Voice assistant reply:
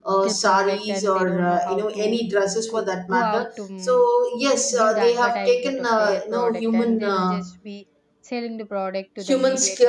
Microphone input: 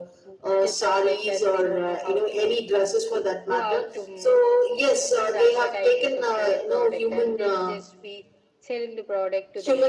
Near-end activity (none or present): none